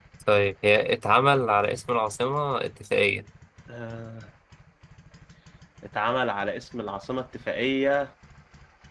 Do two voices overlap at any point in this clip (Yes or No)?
No